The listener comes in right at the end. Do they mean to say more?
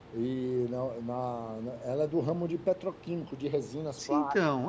Yes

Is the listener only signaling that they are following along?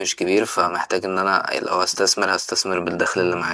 No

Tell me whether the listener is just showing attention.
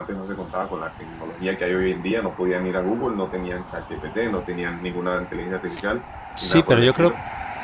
No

